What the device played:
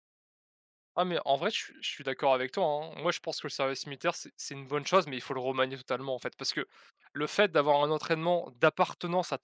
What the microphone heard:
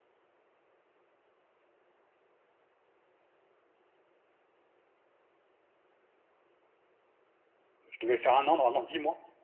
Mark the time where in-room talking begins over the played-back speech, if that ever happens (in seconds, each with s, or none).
7.9 s